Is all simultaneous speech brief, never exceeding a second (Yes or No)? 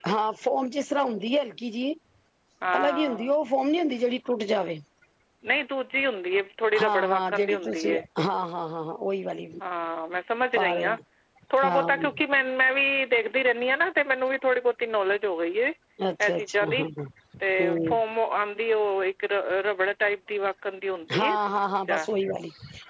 No